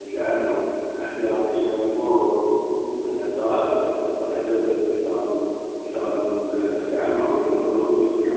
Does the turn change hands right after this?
No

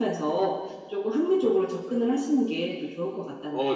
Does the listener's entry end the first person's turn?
Yes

